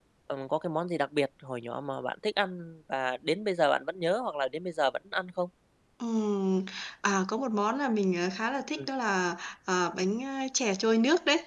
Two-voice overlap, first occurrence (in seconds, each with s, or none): none